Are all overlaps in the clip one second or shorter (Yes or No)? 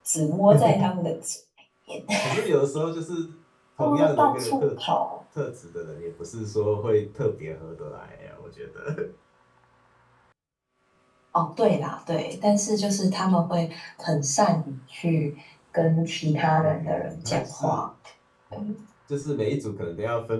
No